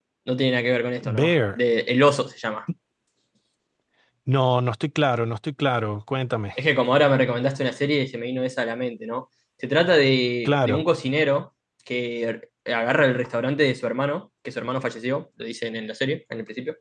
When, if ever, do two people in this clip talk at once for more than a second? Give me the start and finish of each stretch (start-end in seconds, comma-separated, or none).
none